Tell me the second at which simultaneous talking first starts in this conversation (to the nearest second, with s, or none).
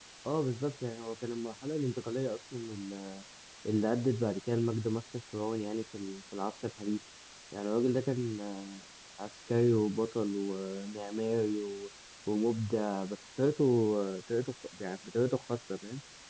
none